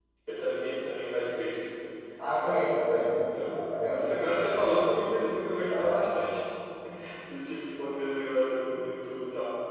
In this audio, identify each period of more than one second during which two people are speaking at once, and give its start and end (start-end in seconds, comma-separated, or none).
3.5-4.7